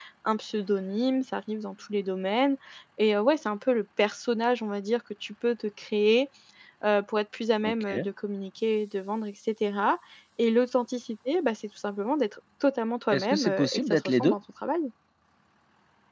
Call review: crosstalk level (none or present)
present